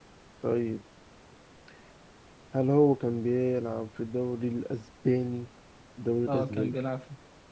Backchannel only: No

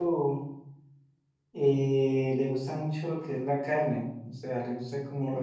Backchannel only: Yes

